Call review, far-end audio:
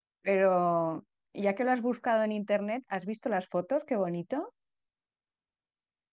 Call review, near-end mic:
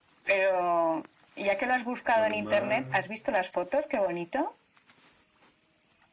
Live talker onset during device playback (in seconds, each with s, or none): 2.1 s